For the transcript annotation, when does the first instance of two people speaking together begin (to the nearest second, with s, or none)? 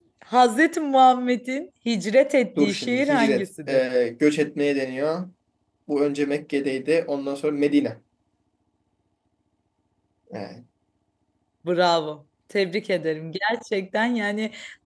3 s